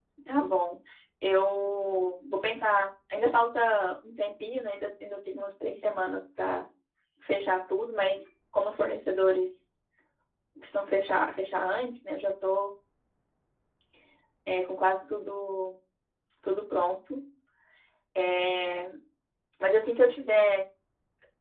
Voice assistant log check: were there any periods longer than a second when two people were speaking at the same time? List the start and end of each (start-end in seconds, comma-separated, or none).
none